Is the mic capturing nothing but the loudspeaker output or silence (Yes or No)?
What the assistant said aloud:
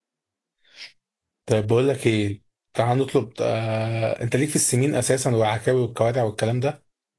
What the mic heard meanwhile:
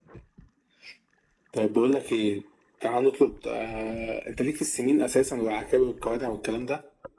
Yes